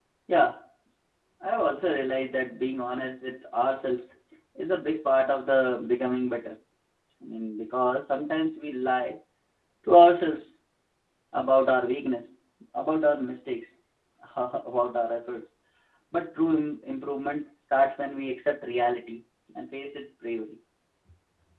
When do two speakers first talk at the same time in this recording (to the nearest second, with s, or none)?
none